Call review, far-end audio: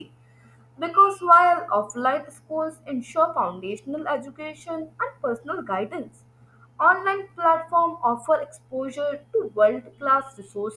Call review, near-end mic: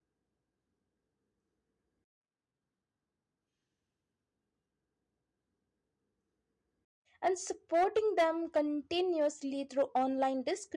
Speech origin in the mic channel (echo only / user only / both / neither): user only